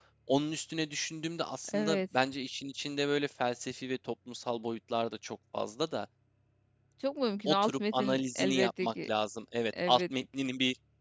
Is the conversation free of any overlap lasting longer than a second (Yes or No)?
No